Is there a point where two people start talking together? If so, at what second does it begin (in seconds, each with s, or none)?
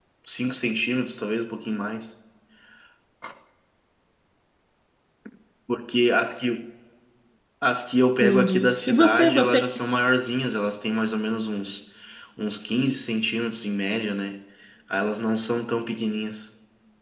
8.2 s